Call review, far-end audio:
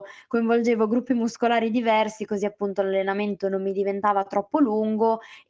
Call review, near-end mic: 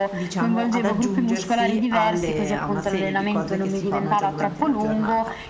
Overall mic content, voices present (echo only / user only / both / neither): both